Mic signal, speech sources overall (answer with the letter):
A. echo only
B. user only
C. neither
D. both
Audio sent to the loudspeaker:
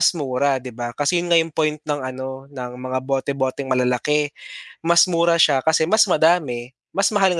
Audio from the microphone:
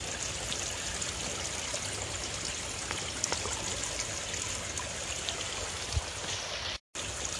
C